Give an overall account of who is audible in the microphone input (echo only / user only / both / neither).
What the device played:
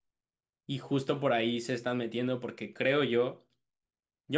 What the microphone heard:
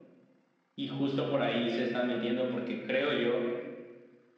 echo only